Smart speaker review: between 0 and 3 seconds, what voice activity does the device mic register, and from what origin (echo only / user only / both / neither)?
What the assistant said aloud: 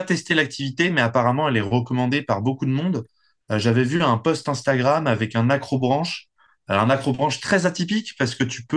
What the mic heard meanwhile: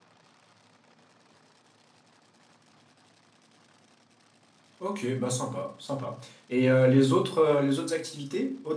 neither